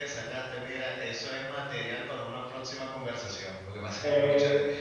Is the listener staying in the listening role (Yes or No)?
Yes